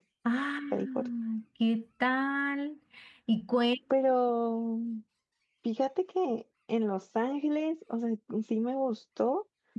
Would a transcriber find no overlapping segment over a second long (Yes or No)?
Yes